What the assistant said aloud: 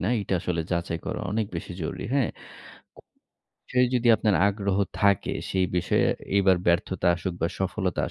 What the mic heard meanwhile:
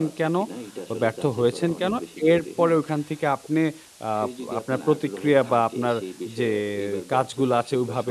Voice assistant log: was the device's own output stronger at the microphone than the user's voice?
No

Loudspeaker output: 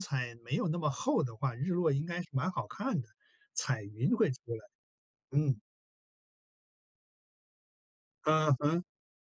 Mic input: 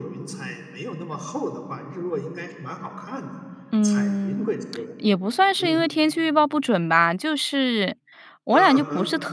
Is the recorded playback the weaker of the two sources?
Yes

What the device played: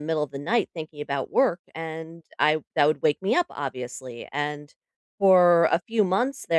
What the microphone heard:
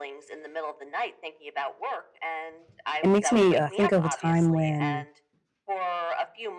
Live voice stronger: Yes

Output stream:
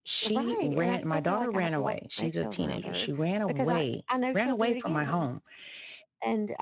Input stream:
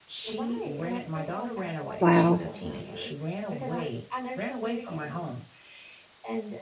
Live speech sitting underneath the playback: No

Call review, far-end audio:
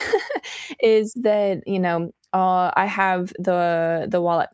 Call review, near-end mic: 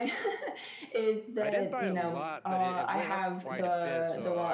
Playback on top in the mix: Yes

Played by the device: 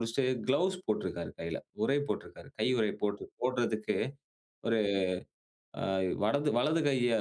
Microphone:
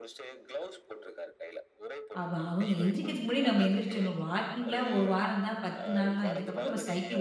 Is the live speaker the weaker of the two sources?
No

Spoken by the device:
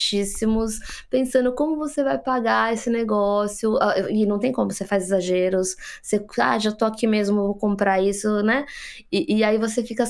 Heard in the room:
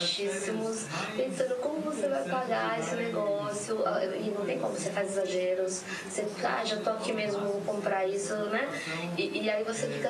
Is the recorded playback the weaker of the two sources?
No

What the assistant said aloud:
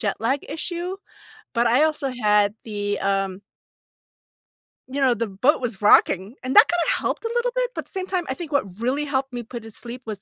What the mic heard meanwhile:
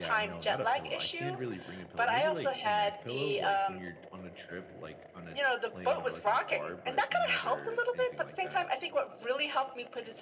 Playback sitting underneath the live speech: No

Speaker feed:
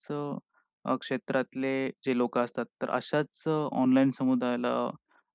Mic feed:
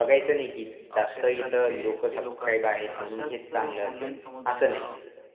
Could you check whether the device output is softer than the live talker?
Yes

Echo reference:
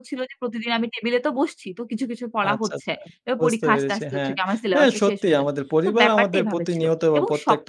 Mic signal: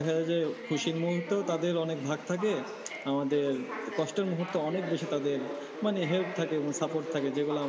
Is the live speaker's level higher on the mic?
Yes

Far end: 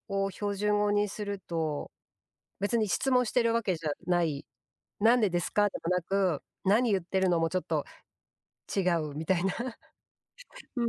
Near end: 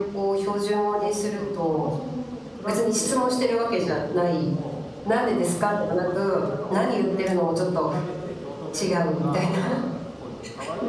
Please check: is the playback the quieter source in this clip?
No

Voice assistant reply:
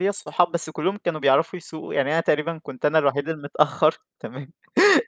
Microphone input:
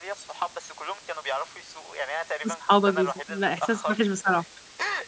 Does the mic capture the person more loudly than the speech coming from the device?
Yes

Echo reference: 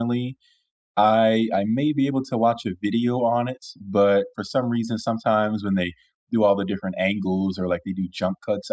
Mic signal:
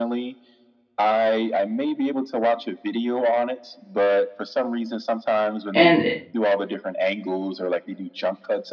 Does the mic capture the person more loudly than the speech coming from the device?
Yes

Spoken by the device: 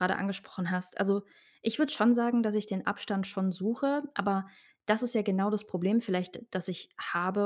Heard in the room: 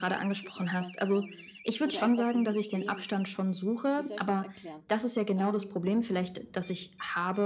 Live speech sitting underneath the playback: Yes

